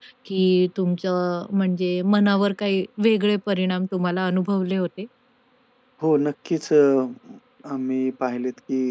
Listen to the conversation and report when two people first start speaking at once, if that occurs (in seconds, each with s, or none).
none